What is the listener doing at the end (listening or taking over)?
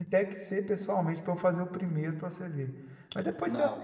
listening